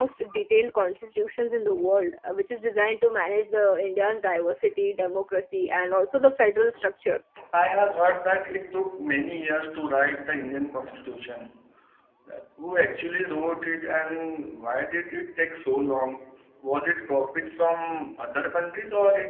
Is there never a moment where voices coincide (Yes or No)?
Yes